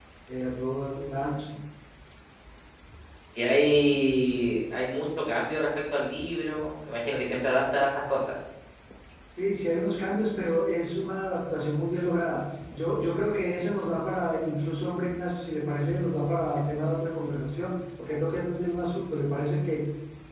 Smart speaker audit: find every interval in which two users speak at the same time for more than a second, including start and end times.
none

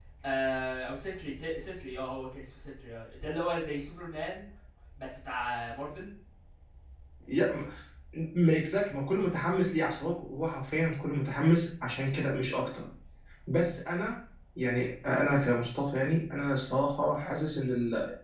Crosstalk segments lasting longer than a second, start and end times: none

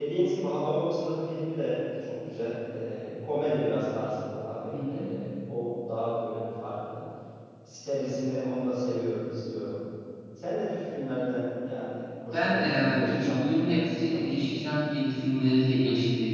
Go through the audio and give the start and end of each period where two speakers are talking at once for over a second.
12.3-14.5

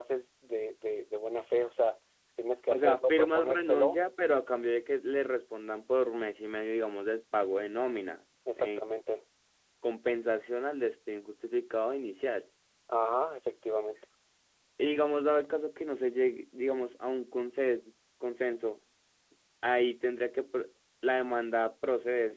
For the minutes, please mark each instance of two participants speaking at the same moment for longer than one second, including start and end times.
2.7-4.0

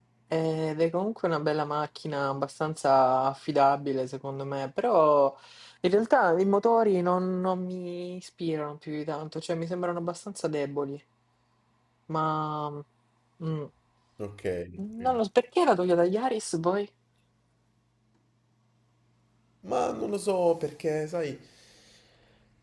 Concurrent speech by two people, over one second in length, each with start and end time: none

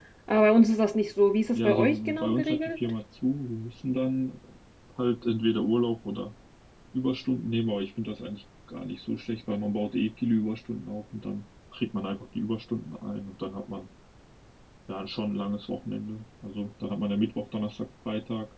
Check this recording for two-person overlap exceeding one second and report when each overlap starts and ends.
1.5-2.8

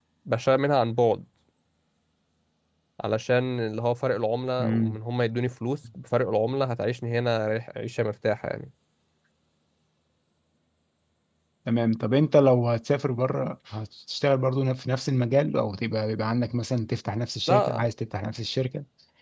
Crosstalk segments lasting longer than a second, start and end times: none

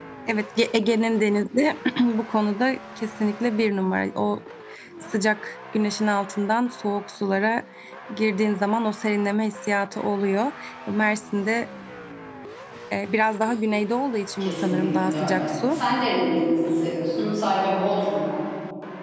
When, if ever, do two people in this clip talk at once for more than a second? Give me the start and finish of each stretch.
14.4-15.8

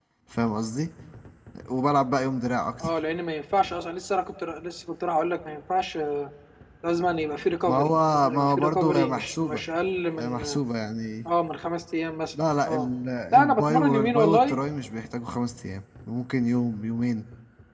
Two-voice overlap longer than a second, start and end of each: 7.7-9.6, 13.3-14.6

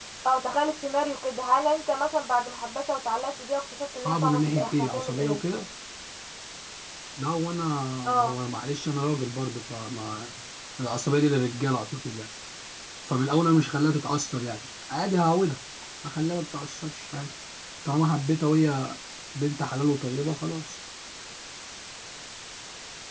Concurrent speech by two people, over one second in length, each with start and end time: 4.1-5.4

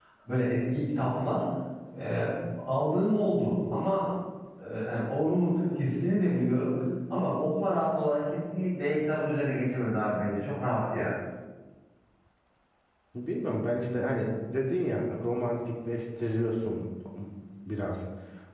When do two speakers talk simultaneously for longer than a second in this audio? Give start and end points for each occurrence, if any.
none

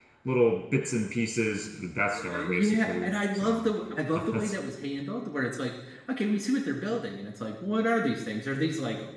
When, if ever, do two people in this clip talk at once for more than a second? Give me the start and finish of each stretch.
2.1-3.6

